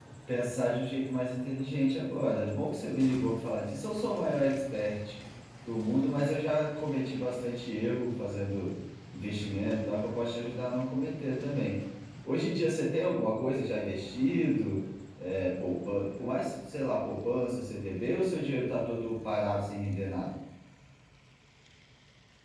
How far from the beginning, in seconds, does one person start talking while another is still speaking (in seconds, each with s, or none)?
none